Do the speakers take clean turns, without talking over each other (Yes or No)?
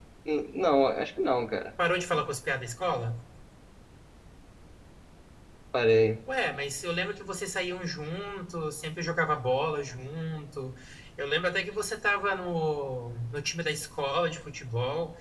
Yes